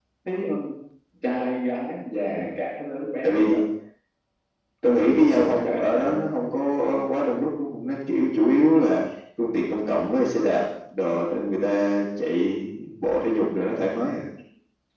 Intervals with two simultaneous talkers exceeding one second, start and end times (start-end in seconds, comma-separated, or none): 4.9-6.1